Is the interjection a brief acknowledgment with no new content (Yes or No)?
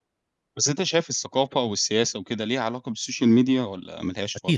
No